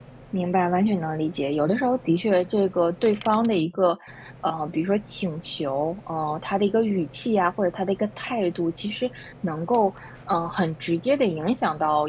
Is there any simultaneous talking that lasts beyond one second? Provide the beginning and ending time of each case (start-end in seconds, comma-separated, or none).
none